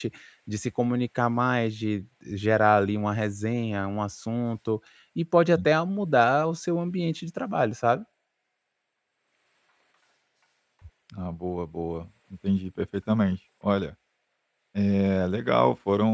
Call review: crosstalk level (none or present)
none